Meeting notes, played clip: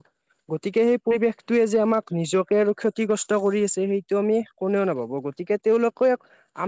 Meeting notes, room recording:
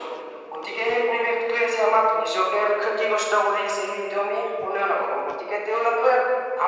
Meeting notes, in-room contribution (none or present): none